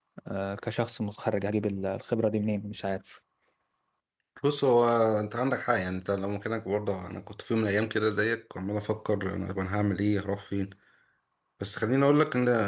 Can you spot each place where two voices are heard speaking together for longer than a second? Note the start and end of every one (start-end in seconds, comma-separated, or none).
none